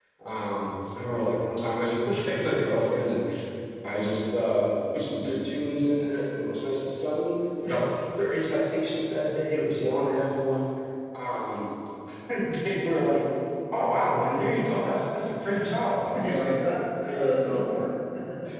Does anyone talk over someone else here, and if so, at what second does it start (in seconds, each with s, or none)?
16.1 s